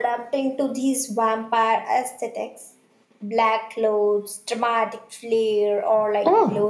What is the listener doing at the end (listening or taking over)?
taking over